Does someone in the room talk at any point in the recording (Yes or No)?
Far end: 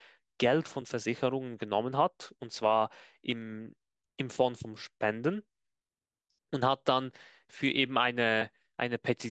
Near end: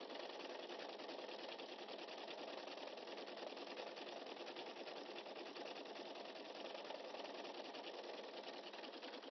No